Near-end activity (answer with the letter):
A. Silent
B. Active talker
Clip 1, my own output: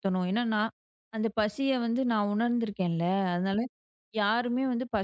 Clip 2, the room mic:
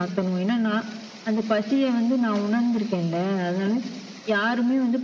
A